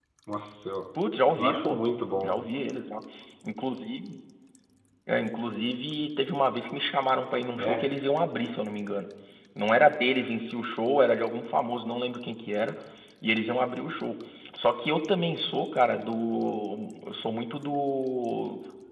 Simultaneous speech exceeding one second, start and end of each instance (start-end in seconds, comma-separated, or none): none